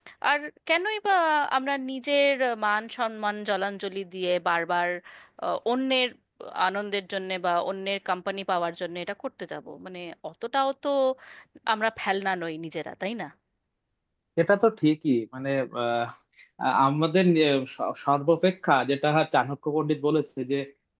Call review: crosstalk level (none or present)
none